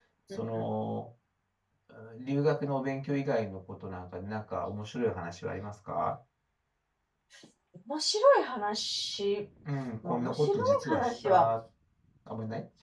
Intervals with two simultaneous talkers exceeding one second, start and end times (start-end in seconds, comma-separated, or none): 10.1-11.5